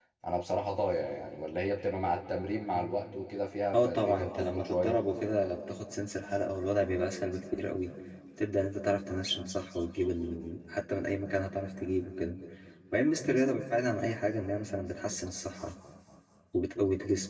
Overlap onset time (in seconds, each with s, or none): 3.7 s